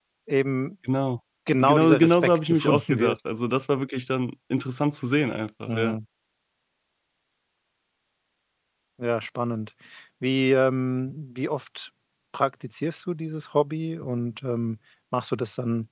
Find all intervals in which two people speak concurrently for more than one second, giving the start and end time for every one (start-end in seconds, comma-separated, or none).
1.6-3.2